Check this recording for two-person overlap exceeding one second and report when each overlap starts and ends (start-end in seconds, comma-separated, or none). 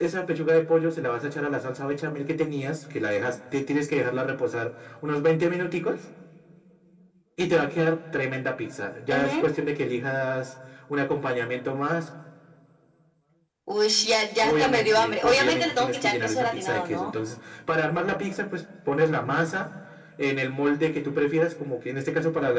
14.4-17.1